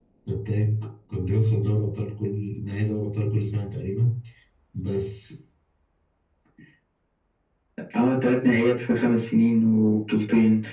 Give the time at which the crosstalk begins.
none

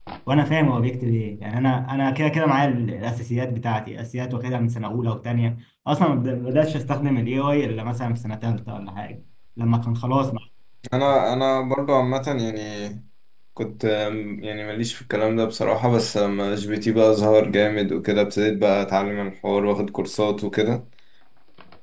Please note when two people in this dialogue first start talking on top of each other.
none

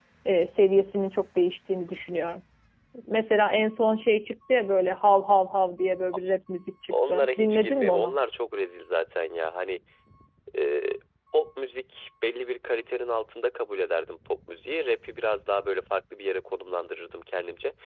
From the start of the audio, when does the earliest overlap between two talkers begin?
6.9 s

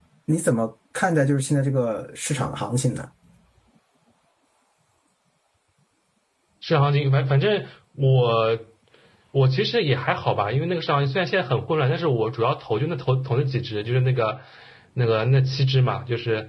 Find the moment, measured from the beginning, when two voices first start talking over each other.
none

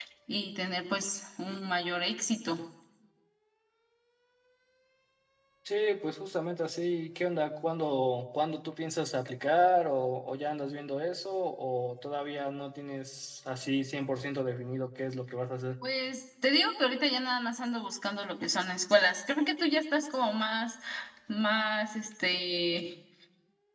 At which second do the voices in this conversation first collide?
none

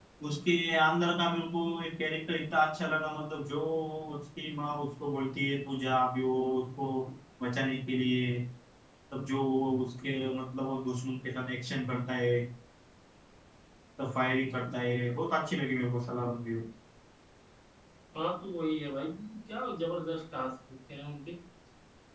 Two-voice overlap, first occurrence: none

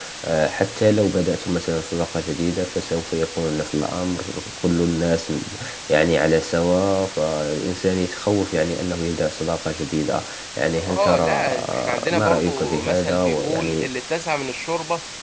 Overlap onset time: 10.8 s

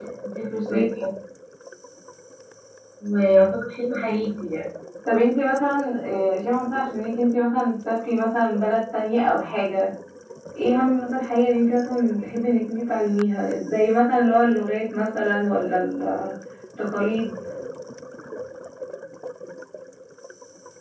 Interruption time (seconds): none

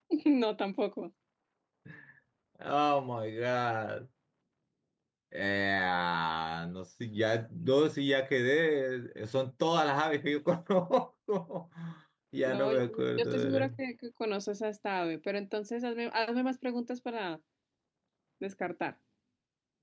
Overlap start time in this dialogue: 12.4 s

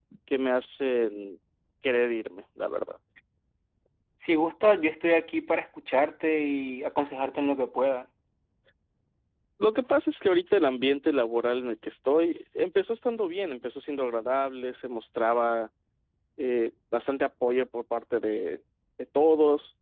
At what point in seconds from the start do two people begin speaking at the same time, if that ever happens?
none

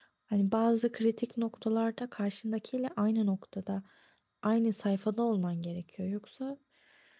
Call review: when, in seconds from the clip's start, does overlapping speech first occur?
none

